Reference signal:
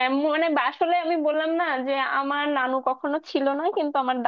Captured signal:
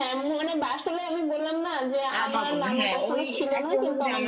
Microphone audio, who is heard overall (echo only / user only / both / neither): both